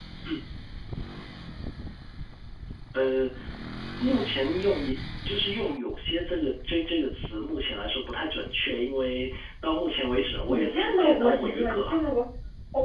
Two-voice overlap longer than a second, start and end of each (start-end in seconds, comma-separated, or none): 10.5-11.8